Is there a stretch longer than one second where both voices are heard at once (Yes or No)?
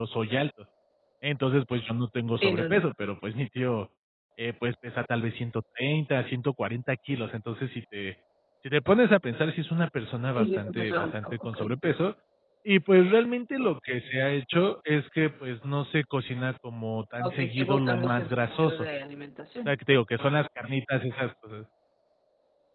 Yes